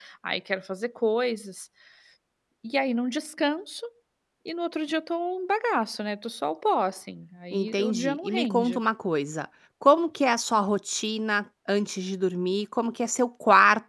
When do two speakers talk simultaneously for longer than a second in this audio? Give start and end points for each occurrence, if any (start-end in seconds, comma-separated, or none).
7.5-8.8